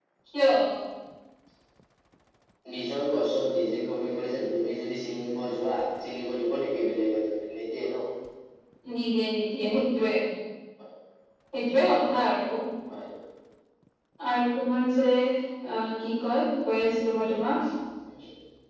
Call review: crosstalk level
none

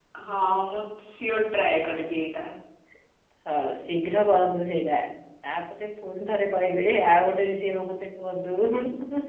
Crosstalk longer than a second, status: none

